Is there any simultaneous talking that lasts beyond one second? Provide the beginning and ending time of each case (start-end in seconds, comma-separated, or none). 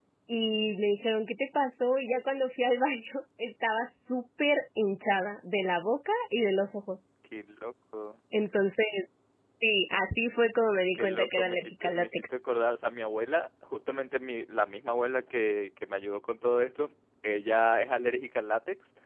10.9-12.2